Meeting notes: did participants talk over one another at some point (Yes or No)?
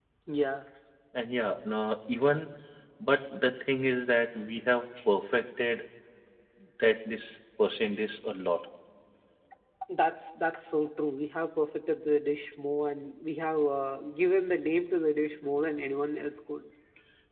No